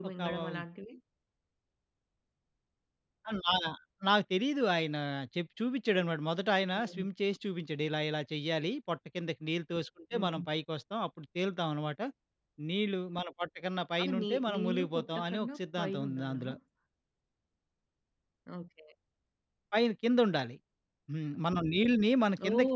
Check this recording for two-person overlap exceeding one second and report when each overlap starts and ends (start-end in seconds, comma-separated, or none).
14.0-16.4